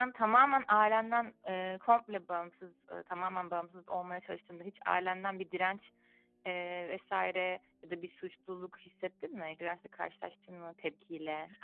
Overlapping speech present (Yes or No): No